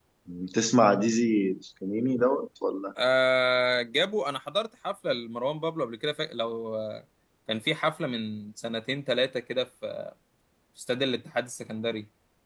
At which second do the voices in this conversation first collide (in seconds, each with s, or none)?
none